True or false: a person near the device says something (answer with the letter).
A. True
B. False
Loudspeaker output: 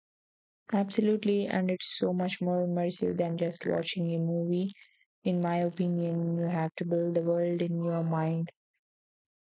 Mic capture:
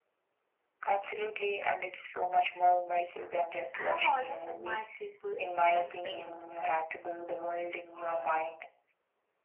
A